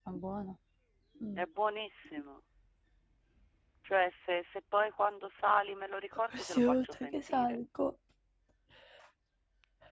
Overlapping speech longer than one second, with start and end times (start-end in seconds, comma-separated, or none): 6.4-7.6